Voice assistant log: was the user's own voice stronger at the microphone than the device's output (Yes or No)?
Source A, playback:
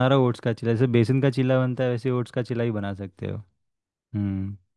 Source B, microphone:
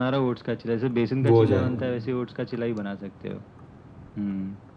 Yes